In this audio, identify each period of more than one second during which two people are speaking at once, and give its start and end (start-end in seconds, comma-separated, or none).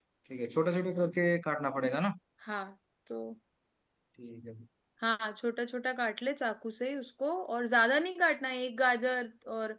none